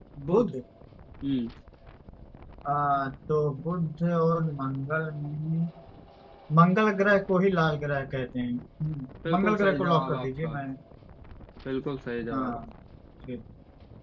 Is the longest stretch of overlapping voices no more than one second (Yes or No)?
No